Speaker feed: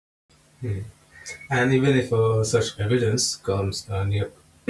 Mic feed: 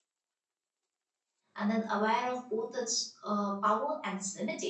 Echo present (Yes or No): No